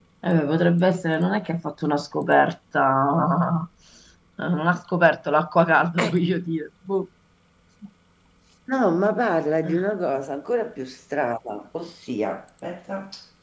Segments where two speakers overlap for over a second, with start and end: none

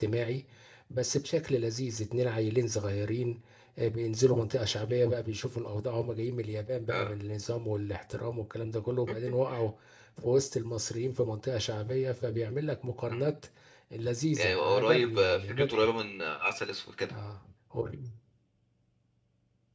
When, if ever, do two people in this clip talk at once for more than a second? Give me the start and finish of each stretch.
14.4-15.9

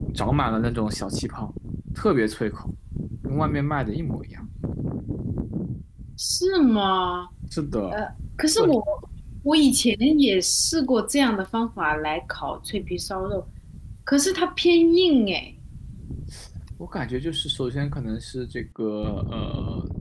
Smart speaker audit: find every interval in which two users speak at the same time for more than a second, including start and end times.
none

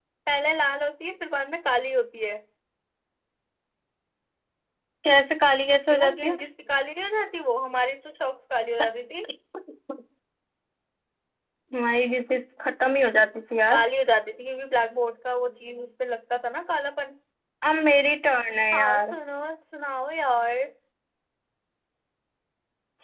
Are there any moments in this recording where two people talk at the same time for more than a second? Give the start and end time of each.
none

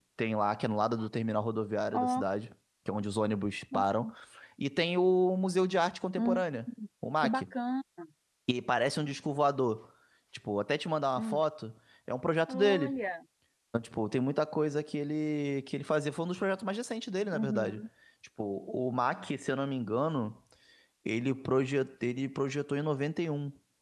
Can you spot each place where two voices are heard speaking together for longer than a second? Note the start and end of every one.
none

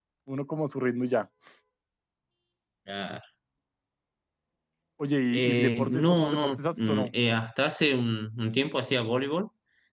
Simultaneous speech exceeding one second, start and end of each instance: 5.3-7.1

